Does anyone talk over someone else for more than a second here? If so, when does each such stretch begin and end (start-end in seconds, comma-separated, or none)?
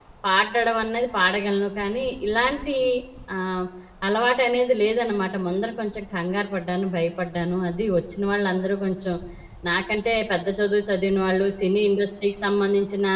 none